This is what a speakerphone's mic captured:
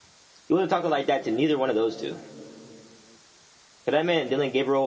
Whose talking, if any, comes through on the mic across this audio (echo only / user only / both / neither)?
user only